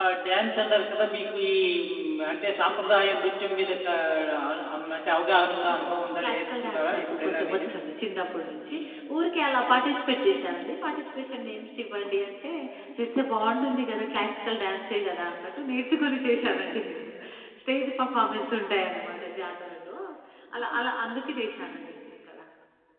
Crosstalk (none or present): present